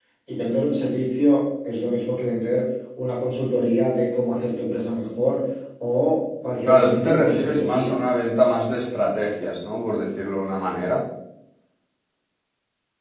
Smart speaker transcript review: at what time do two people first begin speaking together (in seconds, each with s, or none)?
6.7 s